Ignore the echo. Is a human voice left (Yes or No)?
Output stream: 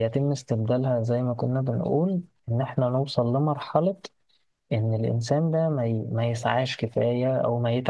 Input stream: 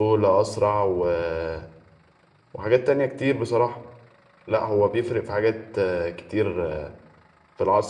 Yes